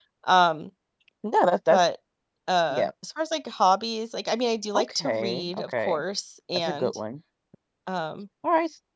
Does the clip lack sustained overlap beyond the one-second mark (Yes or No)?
No